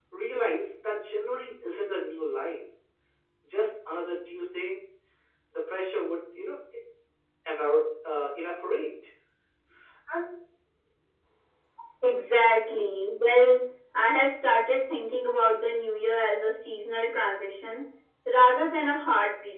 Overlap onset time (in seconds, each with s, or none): none